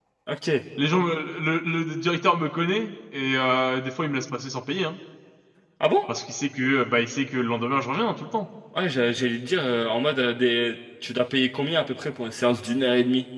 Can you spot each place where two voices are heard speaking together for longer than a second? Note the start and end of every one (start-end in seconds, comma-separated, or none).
none